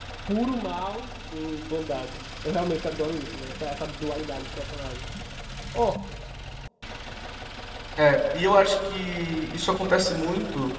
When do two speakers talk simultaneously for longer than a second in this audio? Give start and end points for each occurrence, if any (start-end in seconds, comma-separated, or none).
none